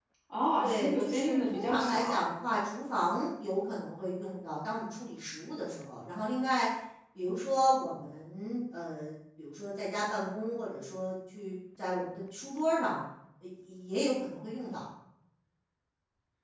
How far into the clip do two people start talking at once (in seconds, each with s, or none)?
0.6 s